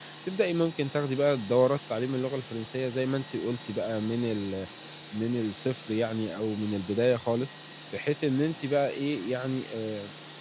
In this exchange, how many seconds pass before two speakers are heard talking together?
none

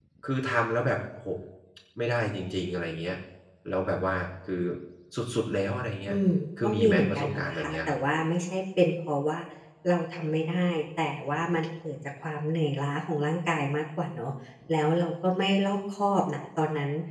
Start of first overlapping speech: 6.6 s

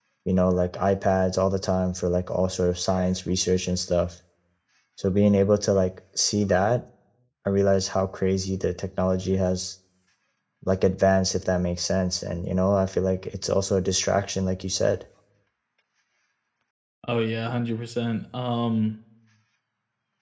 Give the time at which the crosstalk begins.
none

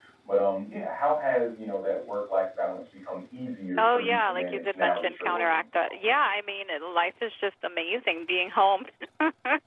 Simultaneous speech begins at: 3.8 s

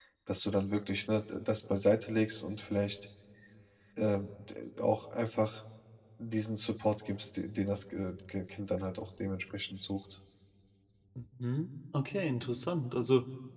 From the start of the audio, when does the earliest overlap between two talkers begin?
none

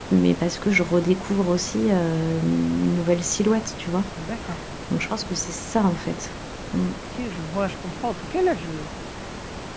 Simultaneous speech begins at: none

